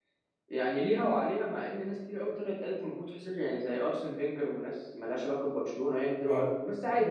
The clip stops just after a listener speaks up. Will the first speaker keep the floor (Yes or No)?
Yes